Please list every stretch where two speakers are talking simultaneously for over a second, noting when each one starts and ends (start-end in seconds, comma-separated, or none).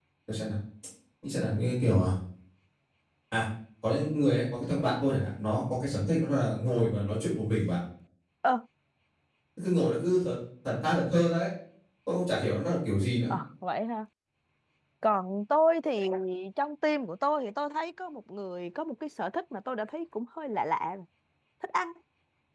none